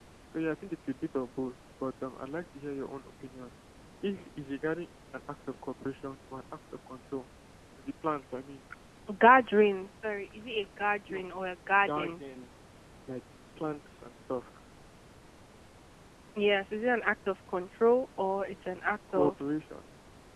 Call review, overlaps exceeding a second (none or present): none